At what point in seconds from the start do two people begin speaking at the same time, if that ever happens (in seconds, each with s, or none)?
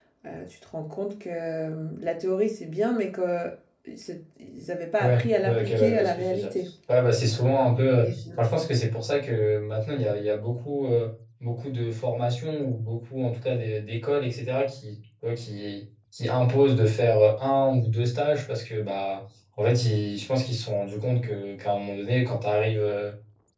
5.0 s